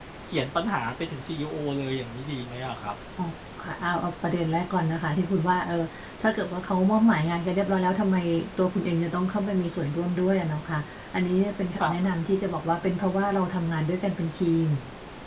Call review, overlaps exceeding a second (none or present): none